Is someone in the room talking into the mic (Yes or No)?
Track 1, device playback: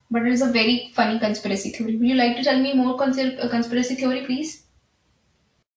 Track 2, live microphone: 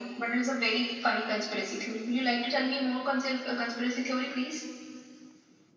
No